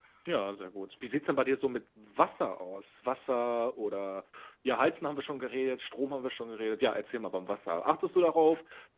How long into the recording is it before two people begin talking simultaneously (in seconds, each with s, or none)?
none